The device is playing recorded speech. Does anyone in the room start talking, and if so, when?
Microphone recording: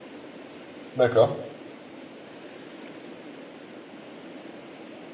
1 s

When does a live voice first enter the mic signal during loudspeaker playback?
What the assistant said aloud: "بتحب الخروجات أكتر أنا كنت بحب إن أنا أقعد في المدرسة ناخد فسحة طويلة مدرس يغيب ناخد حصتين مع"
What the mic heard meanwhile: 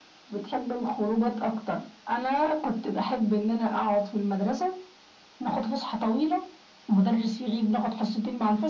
none

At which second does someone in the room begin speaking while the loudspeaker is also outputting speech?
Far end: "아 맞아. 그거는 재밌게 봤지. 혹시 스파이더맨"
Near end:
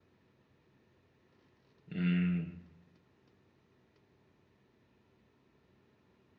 2 s

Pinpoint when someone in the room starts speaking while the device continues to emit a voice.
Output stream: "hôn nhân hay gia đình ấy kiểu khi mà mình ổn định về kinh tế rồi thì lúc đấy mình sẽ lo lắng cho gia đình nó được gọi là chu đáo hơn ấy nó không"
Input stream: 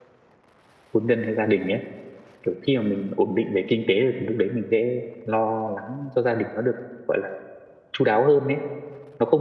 none

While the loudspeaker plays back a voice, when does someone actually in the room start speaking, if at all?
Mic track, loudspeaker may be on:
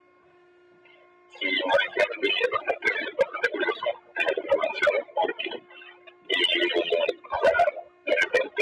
none

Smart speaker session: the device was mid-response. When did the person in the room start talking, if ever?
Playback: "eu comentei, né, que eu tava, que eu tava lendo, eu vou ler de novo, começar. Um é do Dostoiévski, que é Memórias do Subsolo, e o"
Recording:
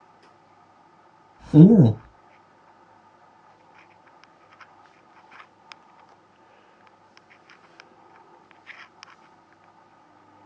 2 s

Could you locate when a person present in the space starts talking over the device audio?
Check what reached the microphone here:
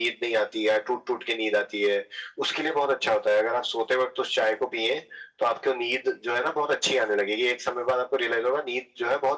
none

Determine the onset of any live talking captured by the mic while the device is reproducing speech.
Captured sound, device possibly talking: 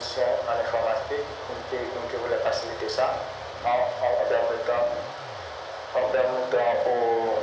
none

